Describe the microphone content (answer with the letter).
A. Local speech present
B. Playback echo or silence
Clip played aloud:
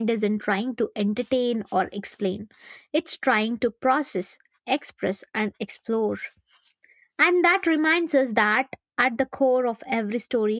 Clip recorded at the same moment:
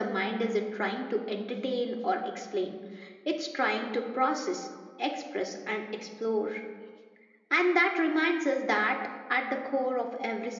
B